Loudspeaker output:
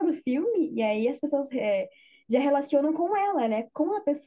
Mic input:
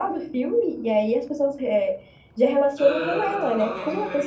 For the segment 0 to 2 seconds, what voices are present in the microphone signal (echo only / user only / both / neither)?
echo only